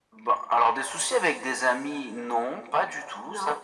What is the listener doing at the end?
listening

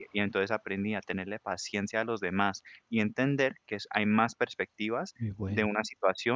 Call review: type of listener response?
listening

